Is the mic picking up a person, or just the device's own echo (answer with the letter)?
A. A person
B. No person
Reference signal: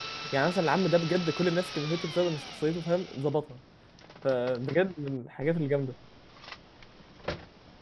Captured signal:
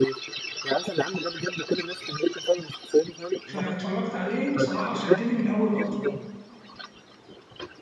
A